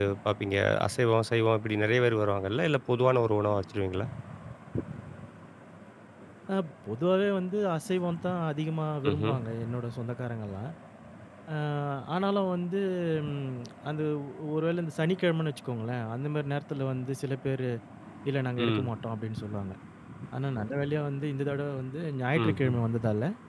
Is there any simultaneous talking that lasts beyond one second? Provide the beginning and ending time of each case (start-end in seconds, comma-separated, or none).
none